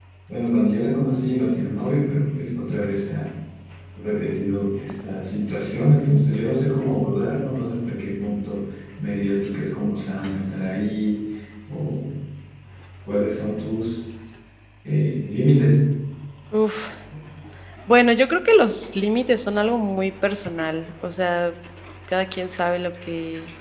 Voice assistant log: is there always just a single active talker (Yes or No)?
Yes